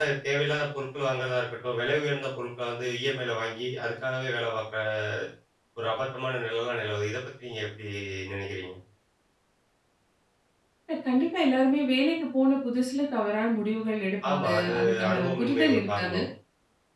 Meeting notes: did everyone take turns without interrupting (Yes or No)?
No